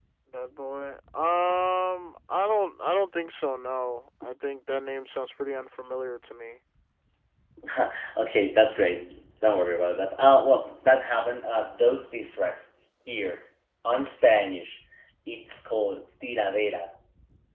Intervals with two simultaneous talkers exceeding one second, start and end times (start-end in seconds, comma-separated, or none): none